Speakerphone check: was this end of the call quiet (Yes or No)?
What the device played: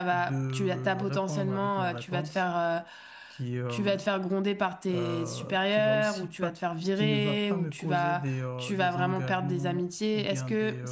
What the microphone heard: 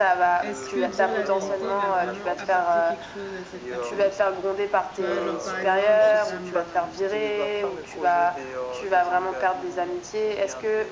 No